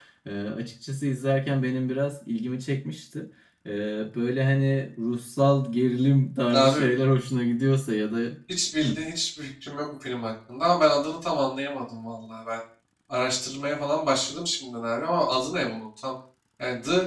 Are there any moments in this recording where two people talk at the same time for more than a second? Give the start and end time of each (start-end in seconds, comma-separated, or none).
none